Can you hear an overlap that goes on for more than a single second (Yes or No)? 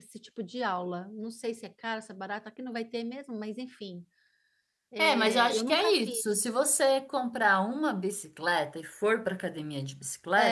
Yes